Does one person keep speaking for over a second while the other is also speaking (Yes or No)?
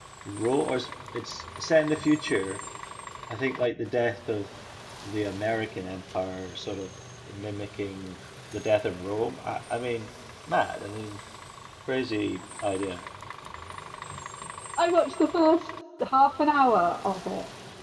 No